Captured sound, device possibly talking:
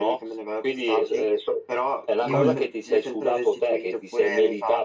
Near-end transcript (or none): Mh-mh.